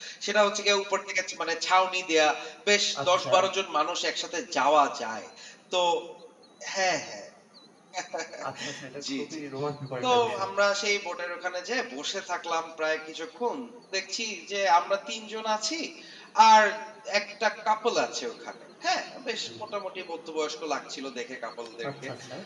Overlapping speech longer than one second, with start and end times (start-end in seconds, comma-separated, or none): none